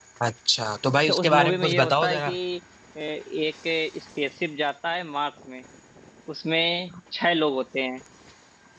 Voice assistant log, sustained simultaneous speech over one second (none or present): present